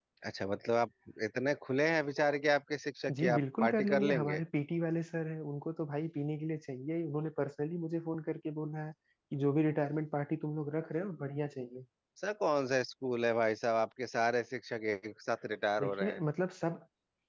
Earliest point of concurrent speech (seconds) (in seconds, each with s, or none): 3.2 s